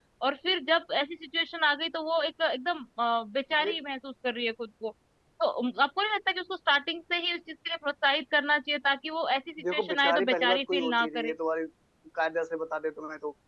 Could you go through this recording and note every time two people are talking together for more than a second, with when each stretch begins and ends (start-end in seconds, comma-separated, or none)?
9.6-11.3